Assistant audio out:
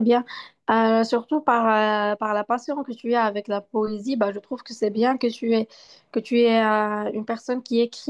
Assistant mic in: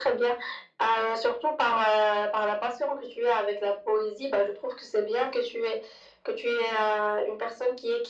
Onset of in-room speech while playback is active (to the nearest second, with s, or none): none